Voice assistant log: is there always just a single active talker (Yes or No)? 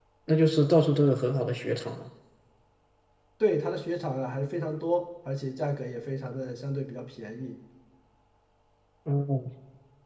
Yes